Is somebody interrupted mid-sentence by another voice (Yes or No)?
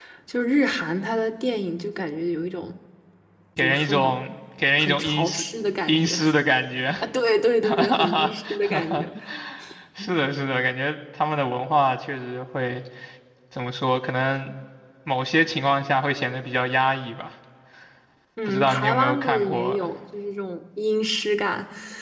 Yes